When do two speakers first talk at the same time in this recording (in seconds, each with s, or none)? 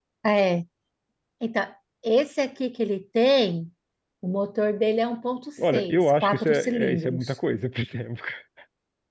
5.6 s